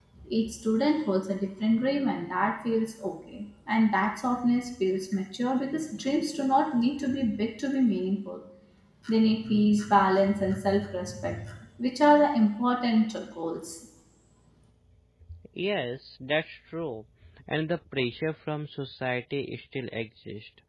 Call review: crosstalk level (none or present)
none